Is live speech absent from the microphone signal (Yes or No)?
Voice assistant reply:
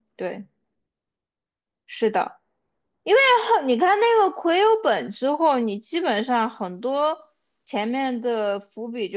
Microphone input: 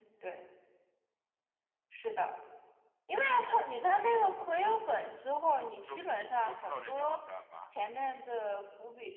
No